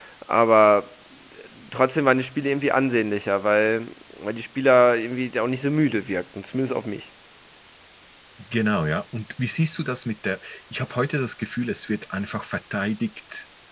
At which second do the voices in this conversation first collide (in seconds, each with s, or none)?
none